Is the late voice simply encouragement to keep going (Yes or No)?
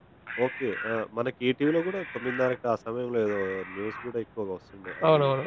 No